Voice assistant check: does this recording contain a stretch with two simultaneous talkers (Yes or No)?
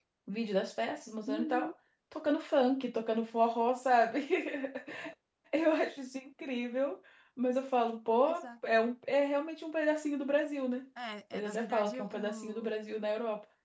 Yes